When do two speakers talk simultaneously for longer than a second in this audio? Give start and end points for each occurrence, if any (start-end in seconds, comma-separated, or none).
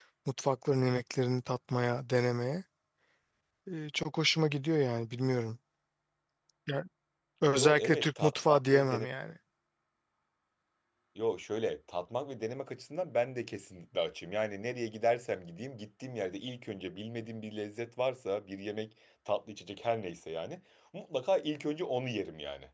7.5-9.1